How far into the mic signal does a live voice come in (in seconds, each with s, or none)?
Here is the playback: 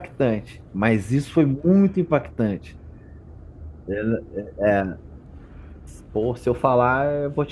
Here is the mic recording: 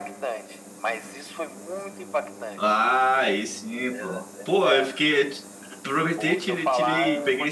2.5 s